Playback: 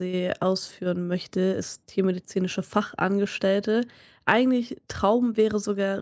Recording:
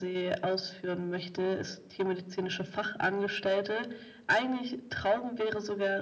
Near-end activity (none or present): none